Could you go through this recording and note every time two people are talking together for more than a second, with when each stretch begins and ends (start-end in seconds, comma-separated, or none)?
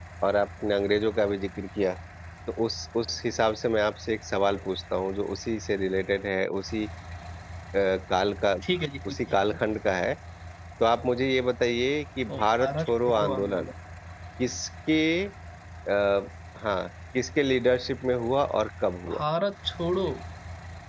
12.3-13.7